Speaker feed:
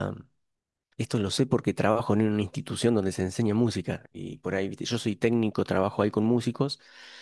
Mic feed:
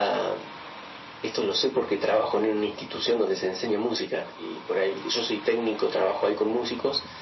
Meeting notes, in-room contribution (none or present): none